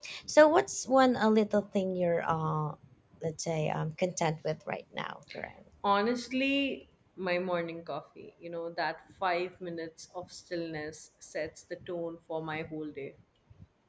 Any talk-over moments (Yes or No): No